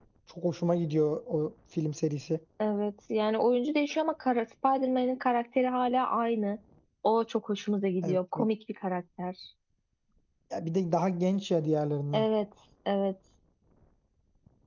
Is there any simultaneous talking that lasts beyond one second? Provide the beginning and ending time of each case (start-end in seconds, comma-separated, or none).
none